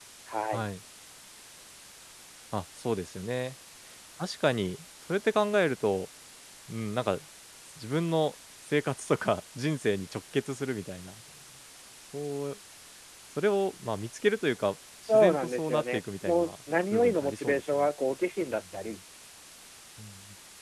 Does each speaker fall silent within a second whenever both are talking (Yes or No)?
No